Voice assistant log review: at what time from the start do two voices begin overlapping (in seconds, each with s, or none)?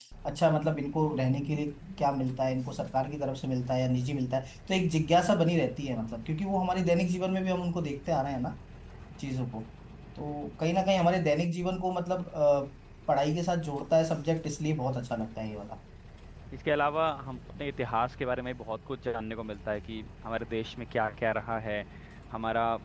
none